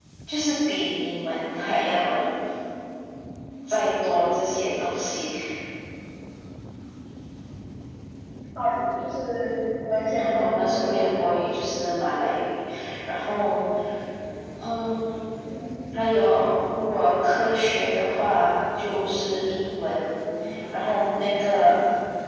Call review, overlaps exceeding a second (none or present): present